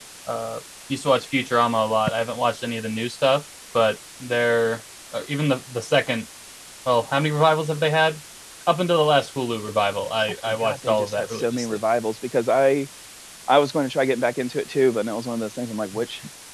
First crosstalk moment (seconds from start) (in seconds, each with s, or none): 10.4 s